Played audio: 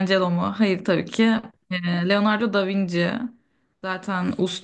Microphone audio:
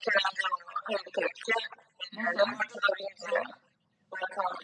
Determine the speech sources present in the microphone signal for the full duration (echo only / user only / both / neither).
both